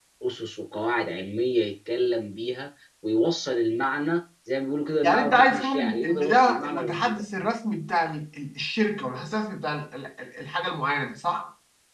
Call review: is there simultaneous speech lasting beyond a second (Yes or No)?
Yes